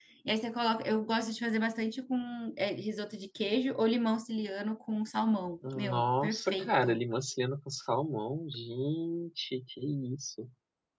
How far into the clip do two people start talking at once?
6 s

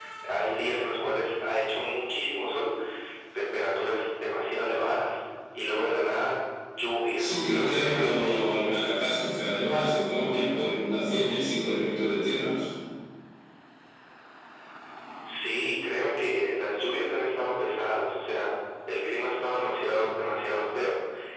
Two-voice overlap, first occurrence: 7 s

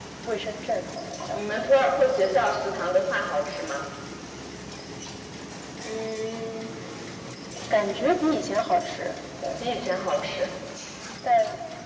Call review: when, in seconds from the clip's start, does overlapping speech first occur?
none

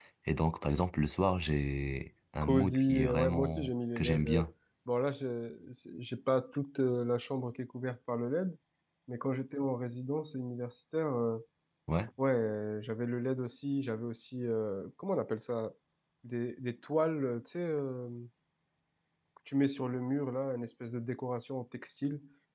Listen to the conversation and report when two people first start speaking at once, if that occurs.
2 s

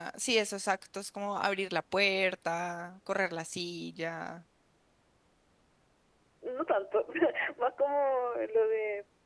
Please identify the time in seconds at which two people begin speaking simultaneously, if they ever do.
none

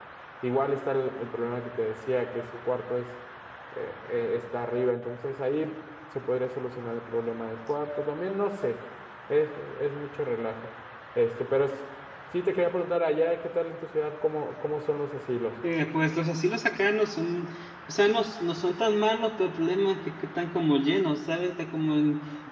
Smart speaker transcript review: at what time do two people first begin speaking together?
none

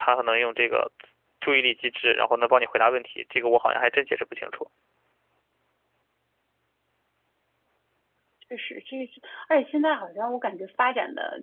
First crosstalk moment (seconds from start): none

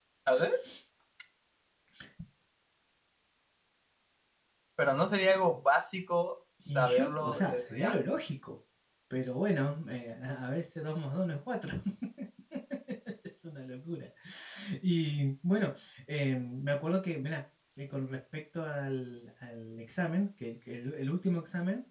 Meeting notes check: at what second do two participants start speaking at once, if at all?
7 s

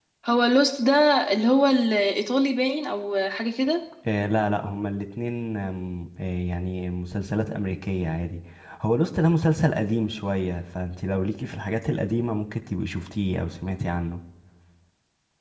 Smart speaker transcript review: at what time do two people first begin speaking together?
none

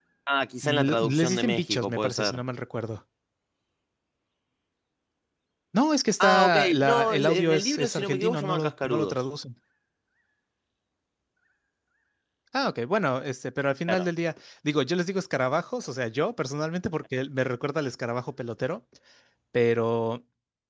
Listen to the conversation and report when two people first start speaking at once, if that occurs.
1 s

